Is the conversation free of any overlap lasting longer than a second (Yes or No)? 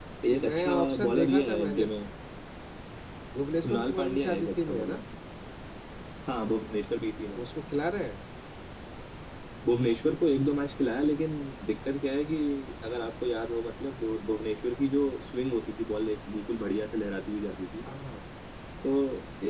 No